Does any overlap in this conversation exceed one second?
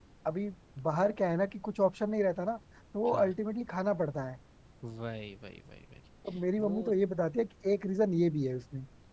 No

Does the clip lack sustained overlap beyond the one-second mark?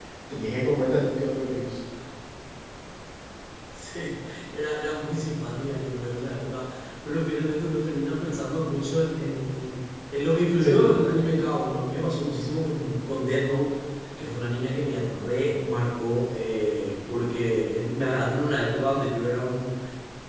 Yes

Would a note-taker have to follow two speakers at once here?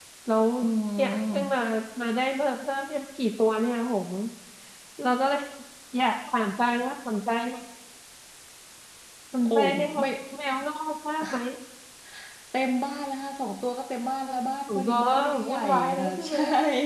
Yes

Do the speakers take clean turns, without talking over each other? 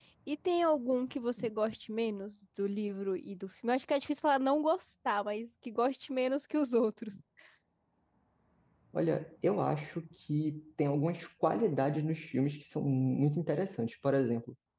Yes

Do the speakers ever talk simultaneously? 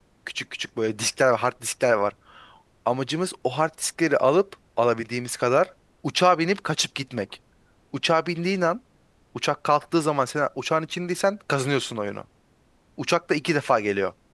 No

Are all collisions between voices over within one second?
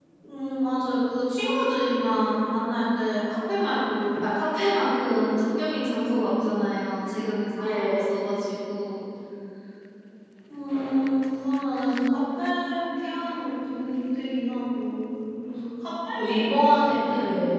Yes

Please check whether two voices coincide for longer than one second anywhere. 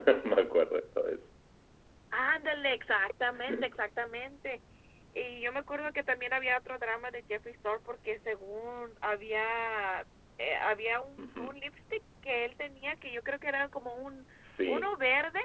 No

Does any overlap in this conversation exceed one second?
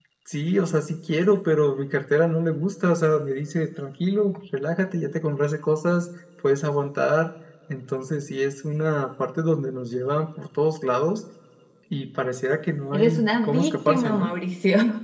Yes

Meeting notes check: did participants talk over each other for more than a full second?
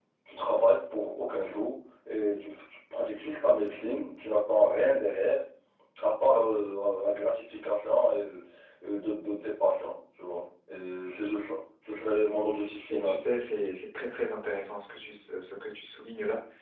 No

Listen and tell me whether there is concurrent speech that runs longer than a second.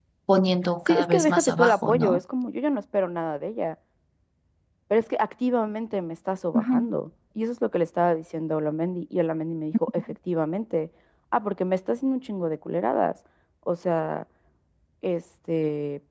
Yes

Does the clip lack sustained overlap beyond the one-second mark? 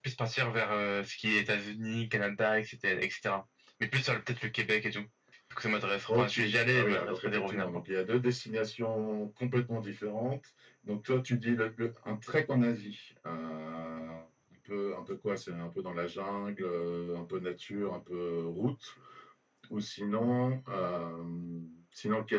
No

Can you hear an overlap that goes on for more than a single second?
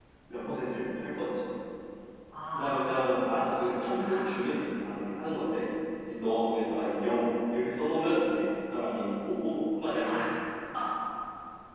No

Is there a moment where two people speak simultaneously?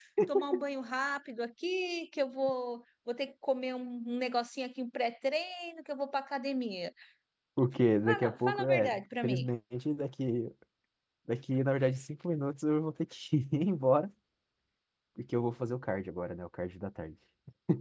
Yes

